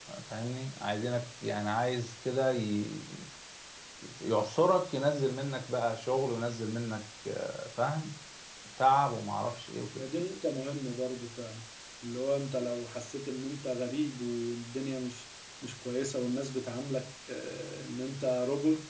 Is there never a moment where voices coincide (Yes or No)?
Yes